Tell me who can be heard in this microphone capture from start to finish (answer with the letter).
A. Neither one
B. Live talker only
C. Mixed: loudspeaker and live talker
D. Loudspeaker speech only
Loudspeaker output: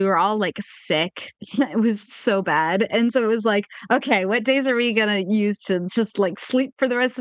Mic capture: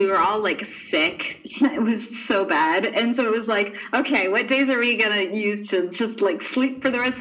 D